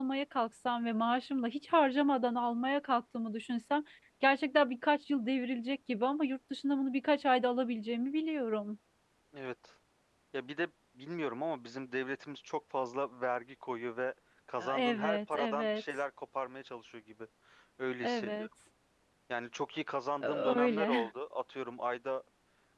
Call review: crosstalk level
present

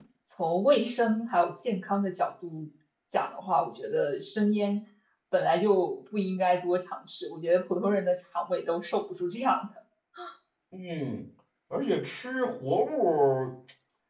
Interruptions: none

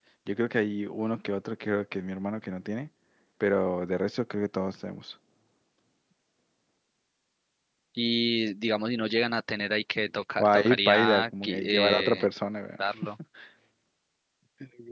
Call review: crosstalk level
present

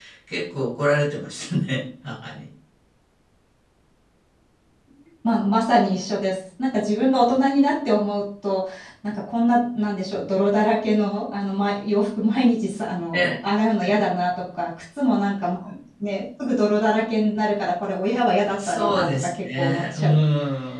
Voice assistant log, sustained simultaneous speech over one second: present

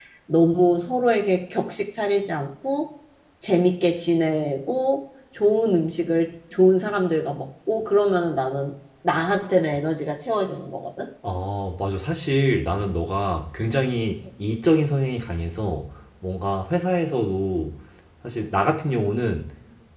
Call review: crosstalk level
none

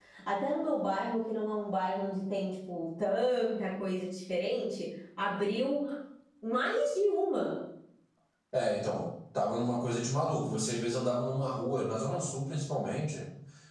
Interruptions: none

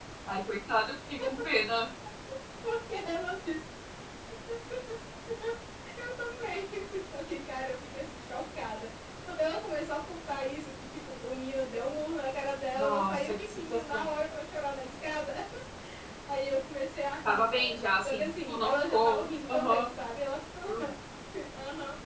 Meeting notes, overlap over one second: present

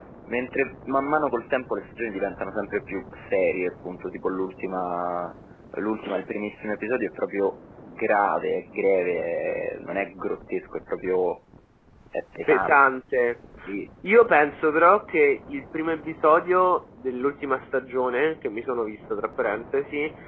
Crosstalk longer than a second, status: none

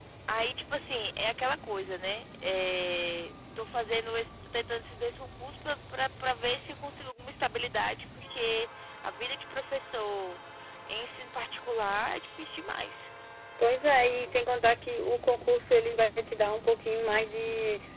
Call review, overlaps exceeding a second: none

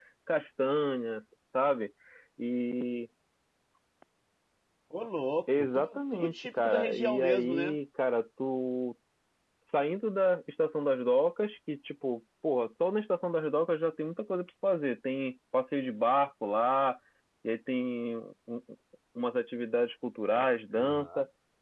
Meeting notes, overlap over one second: present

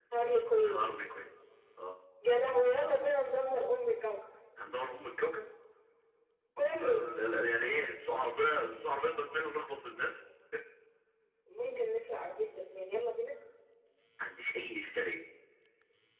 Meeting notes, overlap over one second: none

